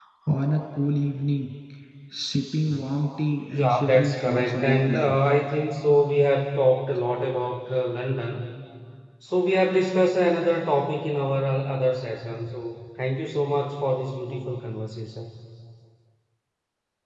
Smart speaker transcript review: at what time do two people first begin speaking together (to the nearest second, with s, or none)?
4 s